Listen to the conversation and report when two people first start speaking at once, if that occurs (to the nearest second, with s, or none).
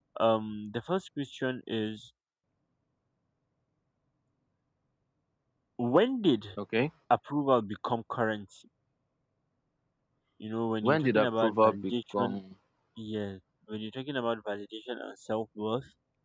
11 s